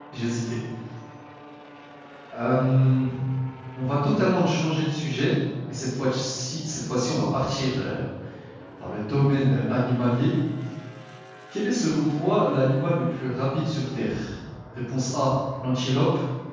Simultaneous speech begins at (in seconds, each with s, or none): none